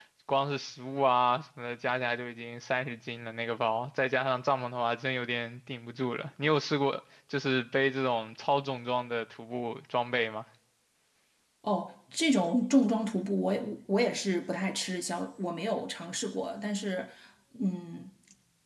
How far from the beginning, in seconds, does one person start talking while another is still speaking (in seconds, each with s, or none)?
none